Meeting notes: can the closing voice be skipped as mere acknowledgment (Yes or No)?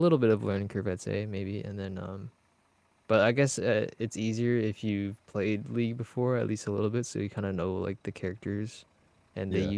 Yes